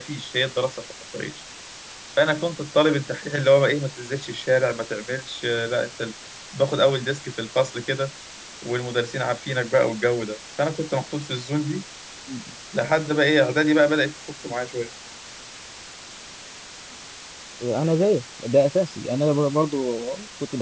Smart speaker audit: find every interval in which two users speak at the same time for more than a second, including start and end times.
none

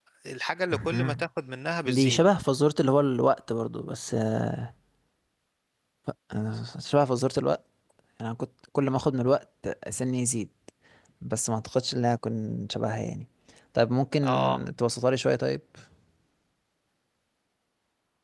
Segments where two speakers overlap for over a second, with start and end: none

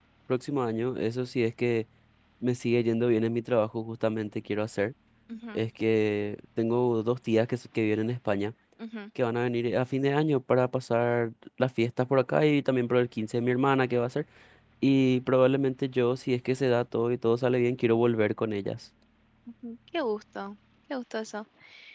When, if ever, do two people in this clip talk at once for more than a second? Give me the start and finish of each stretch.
none

